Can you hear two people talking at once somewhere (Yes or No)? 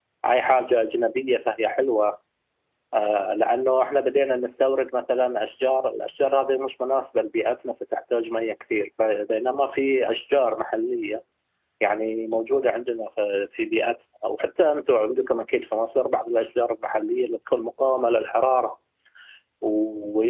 No